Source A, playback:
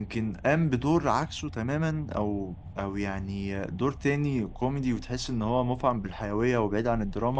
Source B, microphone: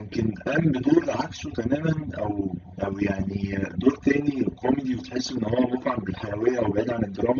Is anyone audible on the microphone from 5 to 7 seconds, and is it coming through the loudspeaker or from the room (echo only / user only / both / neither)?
echo only